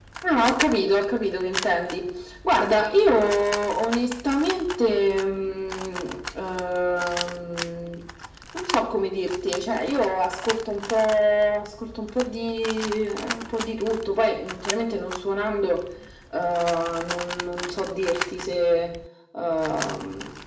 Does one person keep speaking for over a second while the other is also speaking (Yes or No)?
No